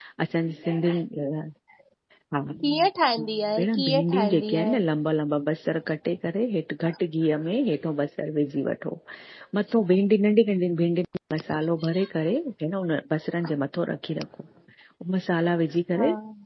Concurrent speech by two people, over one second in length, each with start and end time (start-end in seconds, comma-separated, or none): 3.6-4.8